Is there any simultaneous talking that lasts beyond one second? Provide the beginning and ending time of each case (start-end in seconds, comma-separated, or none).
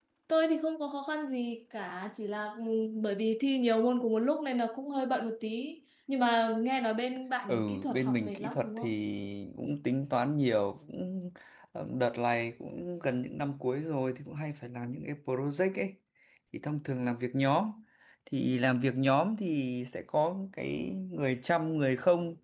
7.5-8.9